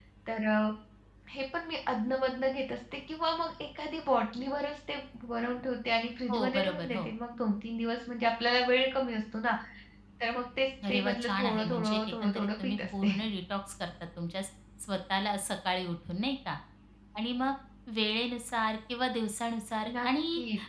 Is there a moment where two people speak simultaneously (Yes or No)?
Yes